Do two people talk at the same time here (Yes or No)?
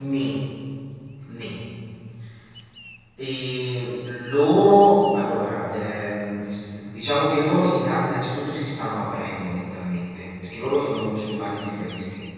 No